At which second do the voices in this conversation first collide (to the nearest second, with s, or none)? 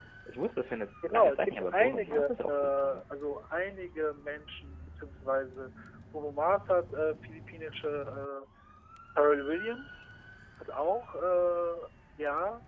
1 s